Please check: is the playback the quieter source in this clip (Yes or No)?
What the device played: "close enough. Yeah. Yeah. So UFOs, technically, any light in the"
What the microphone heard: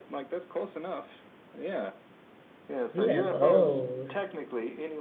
Yes